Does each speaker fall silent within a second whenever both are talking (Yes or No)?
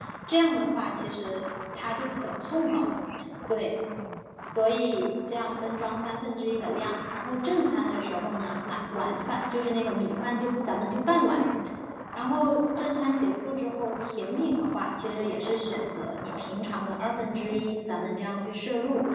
Yes